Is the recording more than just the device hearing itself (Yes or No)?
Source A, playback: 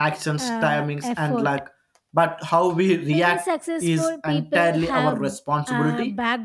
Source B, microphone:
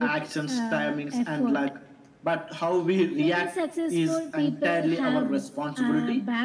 No